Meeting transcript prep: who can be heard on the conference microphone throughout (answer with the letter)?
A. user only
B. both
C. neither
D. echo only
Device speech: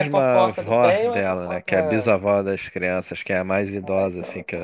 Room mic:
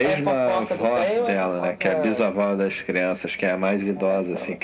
D